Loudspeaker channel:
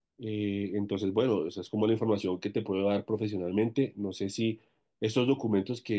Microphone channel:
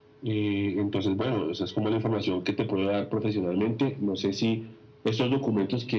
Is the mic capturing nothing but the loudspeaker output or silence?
Yes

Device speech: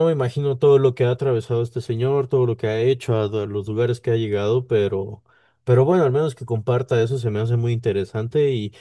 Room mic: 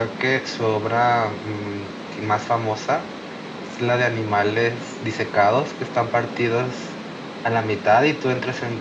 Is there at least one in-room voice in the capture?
Yes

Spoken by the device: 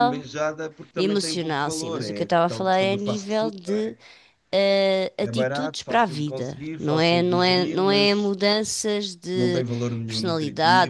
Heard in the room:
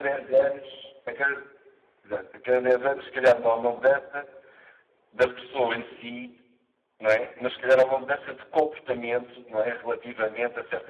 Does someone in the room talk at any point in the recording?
Yes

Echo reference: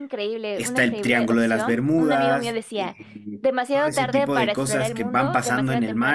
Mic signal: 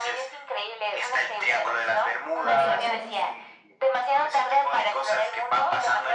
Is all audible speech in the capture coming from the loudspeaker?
No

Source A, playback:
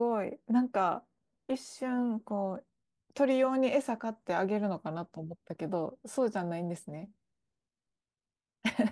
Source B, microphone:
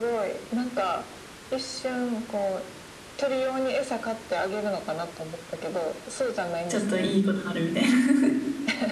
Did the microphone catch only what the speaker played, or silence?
No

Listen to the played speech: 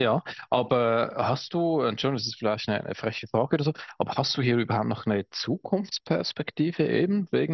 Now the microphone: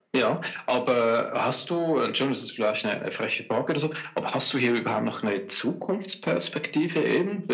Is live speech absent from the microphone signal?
Yes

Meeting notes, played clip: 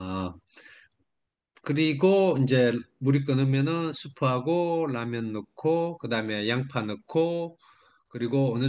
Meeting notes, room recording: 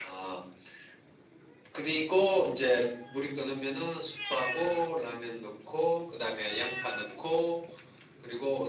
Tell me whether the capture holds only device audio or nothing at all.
Yes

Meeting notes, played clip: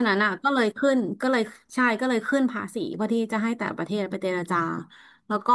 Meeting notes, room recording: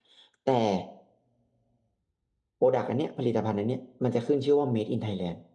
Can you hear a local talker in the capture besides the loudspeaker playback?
Yes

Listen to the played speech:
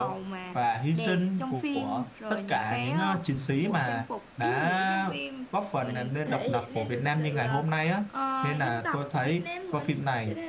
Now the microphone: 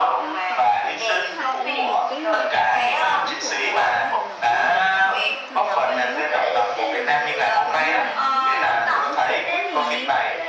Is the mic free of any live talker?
No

